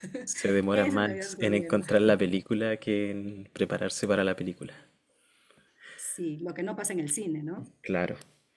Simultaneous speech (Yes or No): Yes